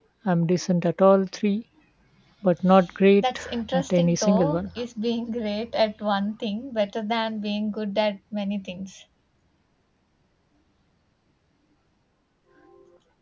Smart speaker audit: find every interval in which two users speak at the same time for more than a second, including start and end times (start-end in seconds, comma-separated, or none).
3.2-4.7